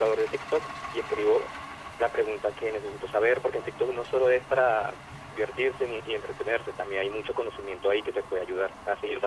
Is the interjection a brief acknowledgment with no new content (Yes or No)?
Yes